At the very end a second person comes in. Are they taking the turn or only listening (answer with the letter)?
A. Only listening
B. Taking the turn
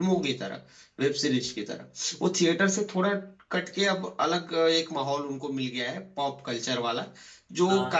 A